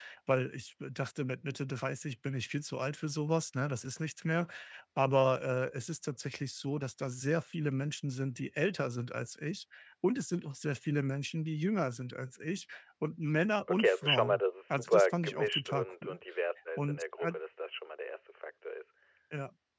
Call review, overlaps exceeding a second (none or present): present